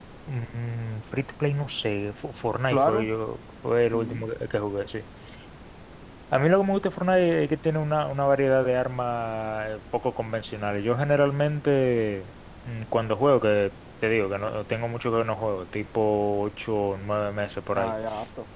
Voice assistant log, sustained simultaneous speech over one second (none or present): none